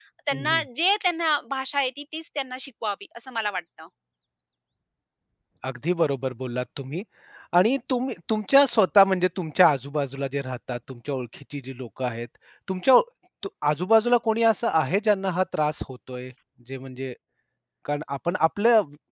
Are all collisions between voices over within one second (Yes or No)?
Yes